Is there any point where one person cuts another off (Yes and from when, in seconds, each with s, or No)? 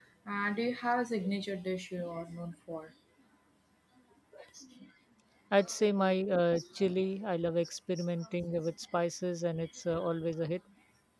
No